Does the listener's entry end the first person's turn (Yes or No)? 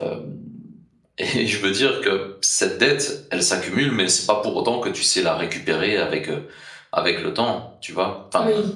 Yes